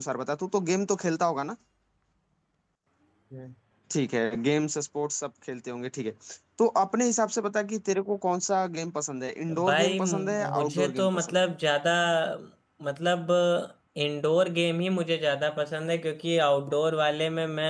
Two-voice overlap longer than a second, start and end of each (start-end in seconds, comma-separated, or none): 9.6-11.5